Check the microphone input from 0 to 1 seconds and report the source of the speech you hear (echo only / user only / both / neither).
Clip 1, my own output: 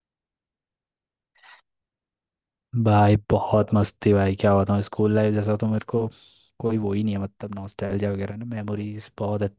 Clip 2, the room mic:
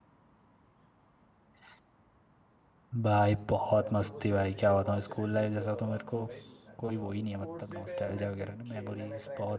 neither